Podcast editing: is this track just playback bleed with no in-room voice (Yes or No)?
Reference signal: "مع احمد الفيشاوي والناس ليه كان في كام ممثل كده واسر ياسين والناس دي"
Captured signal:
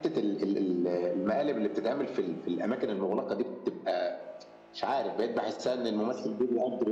No